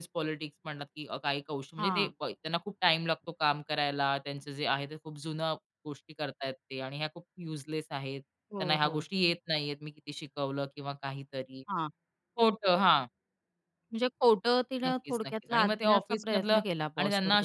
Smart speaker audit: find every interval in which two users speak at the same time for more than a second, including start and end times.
14.8-16.6

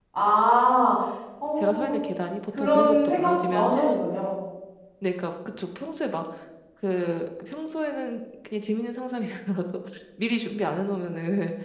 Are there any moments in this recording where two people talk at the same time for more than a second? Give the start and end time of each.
2.6-4.0

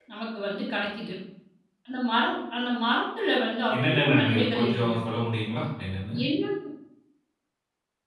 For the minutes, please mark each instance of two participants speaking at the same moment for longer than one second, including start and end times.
3.7-5.0

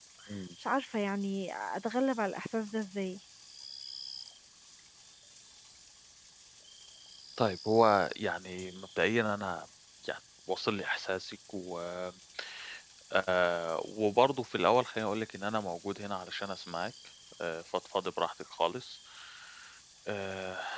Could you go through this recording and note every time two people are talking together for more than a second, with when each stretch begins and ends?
none

